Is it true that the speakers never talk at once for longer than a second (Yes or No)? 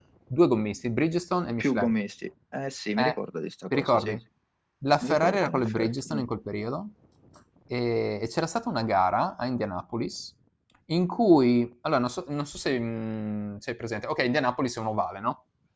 No